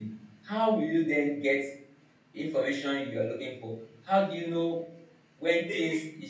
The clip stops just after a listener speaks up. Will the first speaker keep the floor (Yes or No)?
Yes